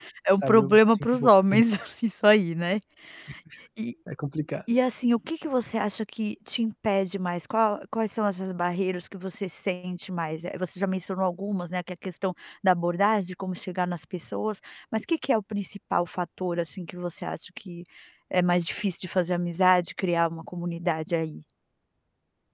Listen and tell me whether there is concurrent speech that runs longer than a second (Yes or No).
Yes